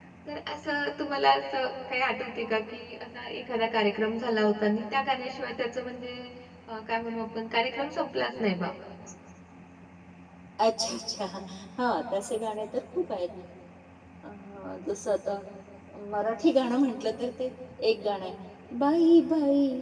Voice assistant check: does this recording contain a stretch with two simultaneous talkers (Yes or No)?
No